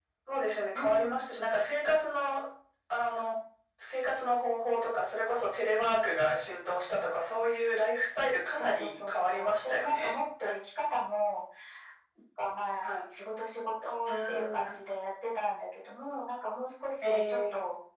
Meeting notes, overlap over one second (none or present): present